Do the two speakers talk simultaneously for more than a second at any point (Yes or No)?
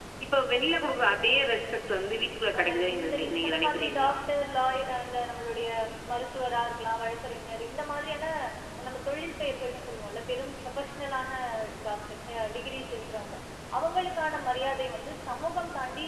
Yes